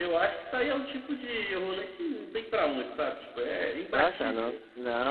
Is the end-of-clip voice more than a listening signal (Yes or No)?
Yes